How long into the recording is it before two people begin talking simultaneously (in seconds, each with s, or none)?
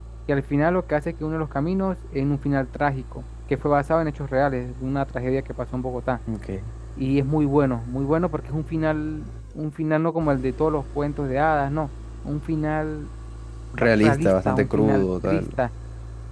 14.0 s